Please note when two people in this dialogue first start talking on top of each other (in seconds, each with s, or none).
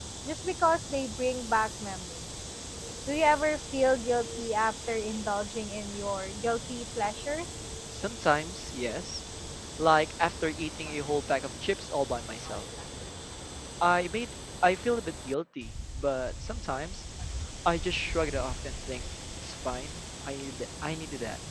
none